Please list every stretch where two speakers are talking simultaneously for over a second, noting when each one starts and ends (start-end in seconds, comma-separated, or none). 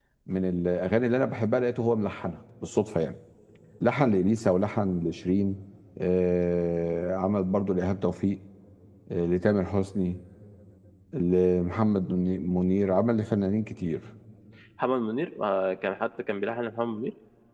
none